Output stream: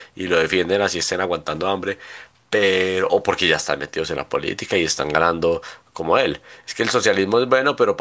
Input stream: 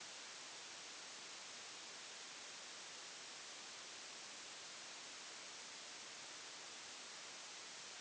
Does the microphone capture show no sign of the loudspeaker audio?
Yes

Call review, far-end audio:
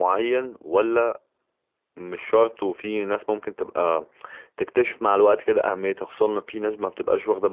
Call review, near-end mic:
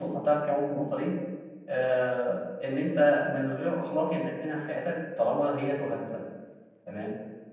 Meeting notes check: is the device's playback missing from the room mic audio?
Yes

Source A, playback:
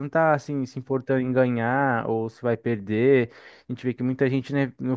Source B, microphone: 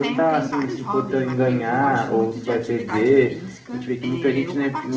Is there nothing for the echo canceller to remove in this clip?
No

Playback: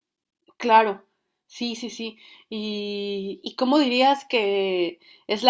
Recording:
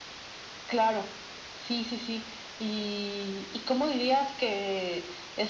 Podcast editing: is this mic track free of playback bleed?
No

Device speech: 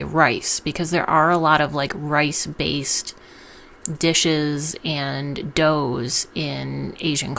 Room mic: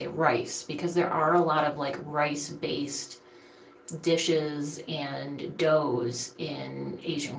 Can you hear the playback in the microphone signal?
Yes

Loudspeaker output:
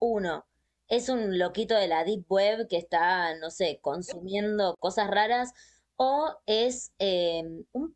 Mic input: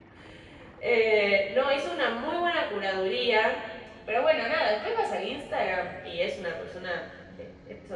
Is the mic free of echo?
Yes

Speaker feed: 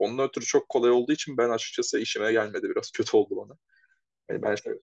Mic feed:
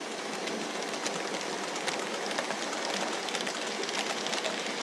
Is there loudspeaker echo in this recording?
No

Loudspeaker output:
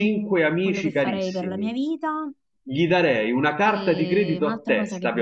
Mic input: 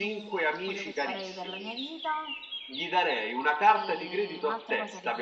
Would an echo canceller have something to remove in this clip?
Yes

